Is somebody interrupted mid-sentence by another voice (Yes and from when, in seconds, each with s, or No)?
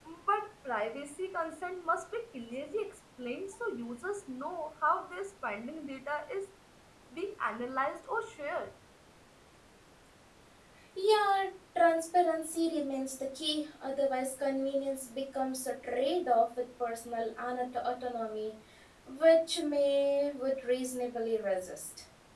No